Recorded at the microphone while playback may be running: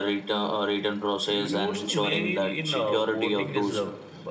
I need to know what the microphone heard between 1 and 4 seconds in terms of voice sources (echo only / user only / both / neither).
both